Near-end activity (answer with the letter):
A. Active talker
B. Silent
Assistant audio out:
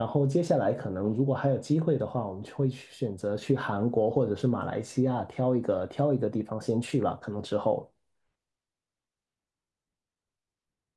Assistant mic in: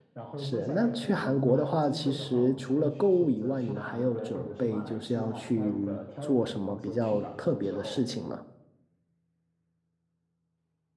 A